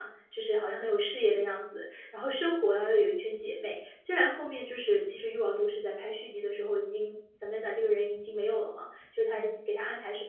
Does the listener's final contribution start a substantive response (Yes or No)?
No